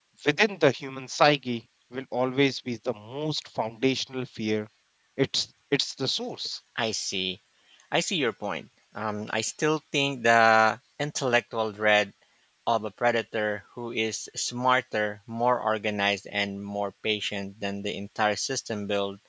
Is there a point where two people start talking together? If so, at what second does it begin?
none

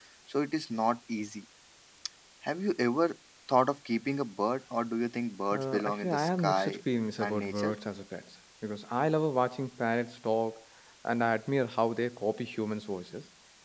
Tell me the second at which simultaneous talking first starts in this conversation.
5.5 s

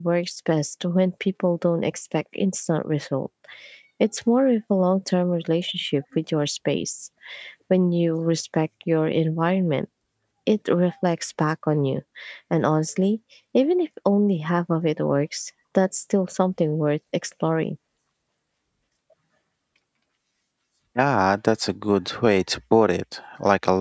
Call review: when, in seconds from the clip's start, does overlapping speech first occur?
none

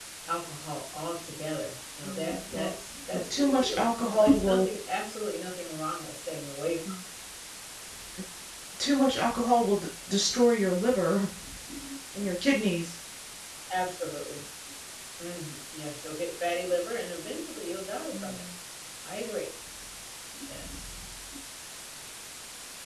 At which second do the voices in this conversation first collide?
2.0 s

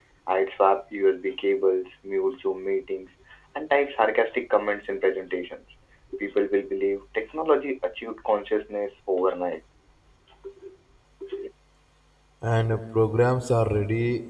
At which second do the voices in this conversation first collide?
none

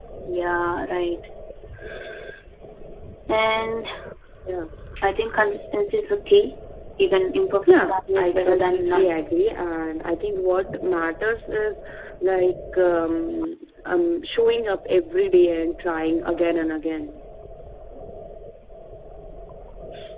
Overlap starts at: 7.7 s

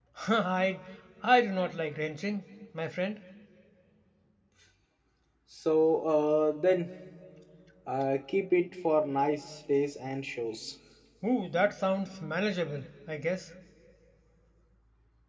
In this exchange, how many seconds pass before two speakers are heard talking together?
none

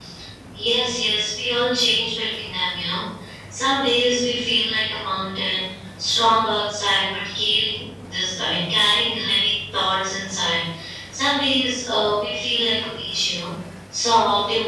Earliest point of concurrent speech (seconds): none

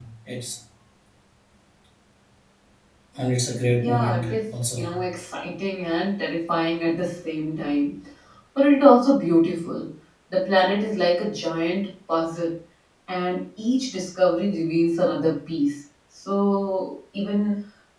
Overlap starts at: 3.7 s

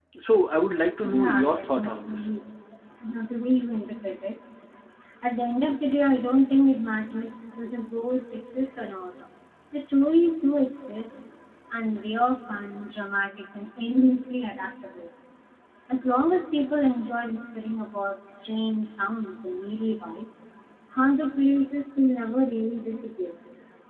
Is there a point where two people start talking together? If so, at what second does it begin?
1.0 s

